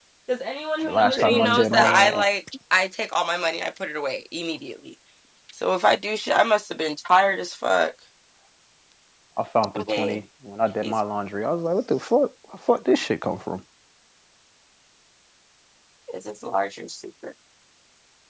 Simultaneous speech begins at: 0.9 s

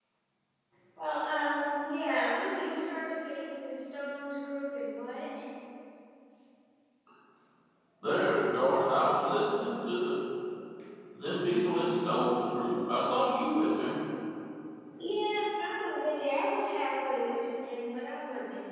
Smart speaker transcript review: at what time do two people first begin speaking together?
none

